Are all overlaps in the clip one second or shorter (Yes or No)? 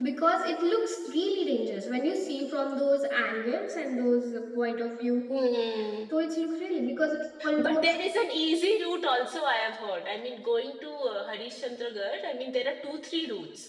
Yes